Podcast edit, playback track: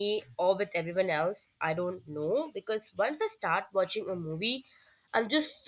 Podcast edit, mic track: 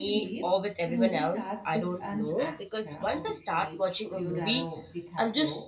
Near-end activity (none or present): present